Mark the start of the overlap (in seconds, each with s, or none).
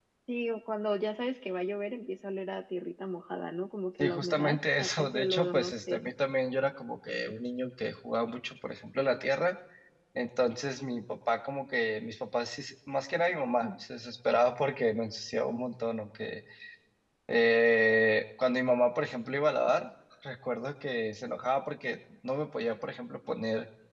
4.0 s